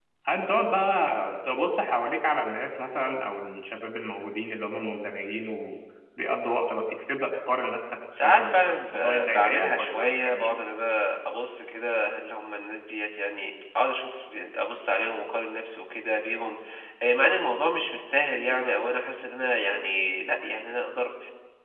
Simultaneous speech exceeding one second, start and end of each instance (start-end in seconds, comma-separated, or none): 8.2-10.5